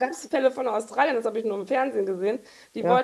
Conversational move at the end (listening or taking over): listening